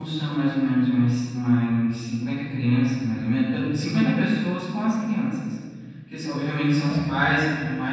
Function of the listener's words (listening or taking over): listening